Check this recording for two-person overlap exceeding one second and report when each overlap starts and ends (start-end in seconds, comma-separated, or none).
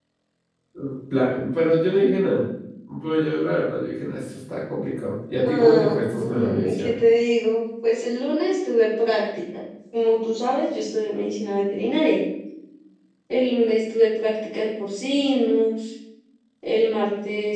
5.4-6.9